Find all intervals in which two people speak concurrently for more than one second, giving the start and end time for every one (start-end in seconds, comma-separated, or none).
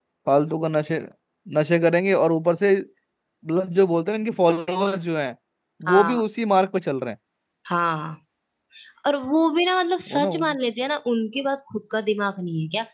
none